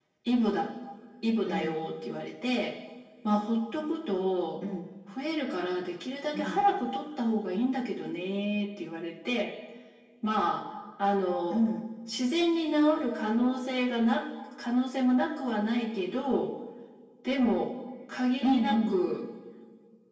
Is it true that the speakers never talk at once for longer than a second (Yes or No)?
Yes